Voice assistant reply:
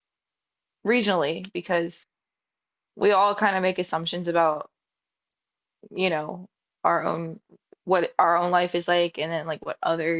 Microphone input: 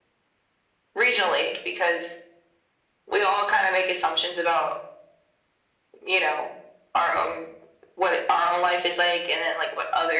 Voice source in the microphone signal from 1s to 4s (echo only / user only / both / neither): echo only